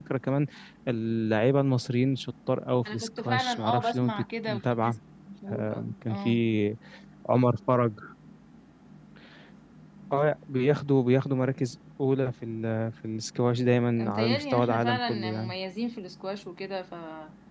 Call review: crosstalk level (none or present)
present